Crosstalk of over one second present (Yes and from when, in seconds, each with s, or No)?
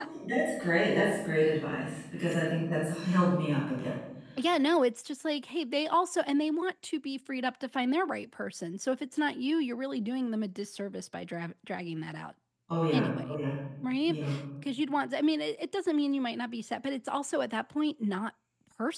No